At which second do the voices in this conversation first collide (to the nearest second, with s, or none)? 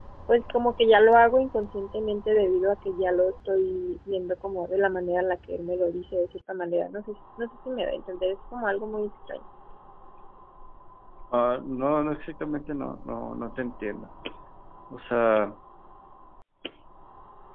none